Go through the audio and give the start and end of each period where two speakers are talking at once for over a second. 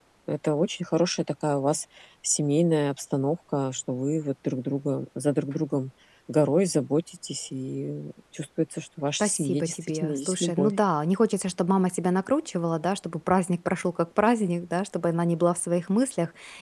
9.2-10.7

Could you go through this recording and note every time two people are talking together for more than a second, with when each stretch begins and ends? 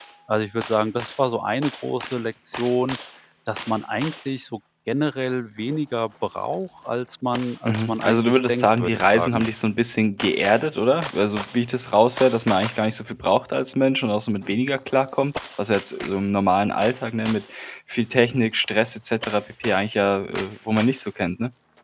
7.7-9.5

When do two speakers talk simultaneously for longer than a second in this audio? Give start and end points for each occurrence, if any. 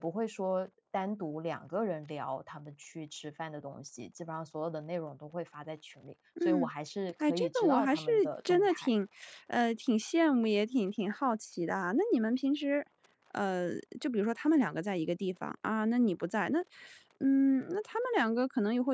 7.2-8.9

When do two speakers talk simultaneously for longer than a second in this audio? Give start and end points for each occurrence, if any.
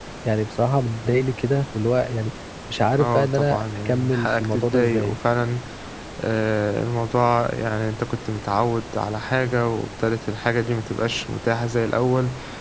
3.0-5.2

